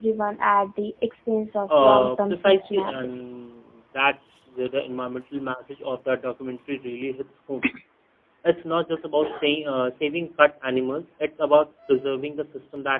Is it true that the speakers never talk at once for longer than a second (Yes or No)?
No